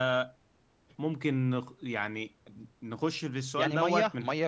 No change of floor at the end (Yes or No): No